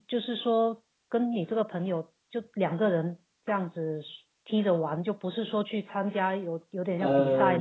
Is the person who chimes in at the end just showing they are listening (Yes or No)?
Yes